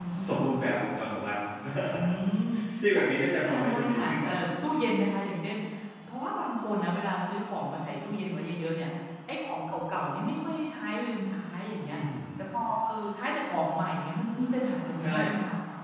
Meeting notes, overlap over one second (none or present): present